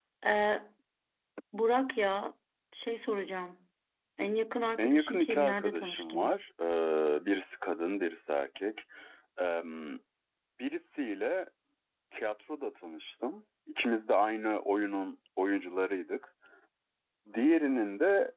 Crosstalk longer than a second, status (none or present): present